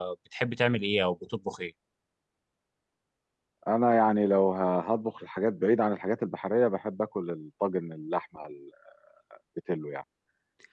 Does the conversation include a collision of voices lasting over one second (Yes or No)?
No